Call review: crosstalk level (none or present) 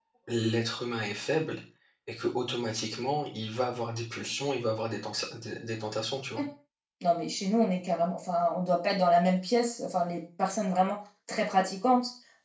none